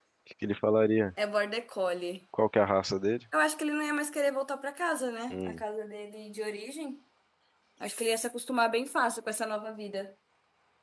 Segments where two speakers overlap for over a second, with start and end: none

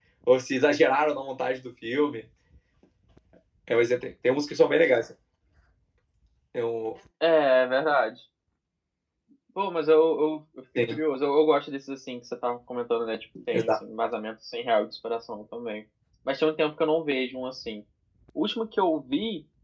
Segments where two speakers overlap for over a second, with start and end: none

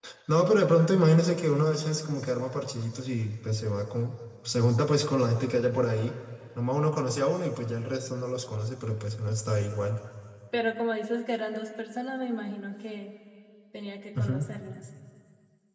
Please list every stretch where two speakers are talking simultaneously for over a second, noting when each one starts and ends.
none

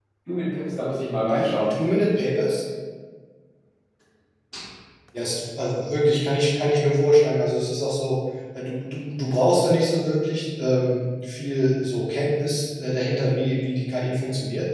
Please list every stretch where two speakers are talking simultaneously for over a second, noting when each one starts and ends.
none

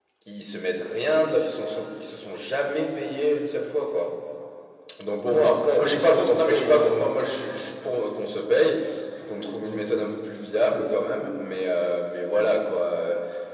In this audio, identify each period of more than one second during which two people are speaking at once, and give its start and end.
5.3-7.1

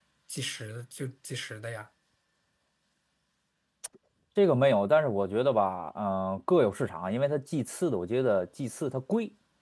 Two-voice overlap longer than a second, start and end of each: none

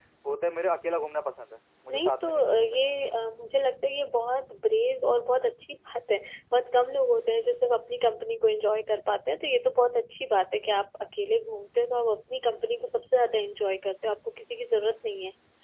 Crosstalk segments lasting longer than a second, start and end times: 1.9-3.1

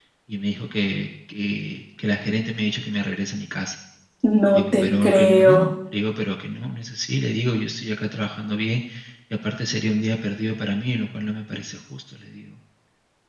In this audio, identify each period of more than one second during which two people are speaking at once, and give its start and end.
4.5-5.8

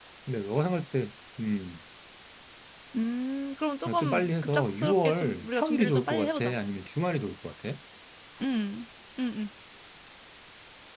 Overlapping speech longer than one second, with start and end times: 3.8-6.5

